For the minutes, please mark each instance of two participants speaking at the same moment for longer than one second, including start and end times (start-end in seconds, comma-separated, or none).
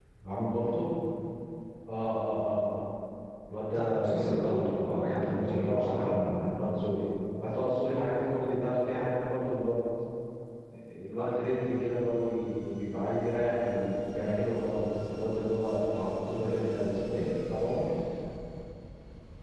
3.7-6.2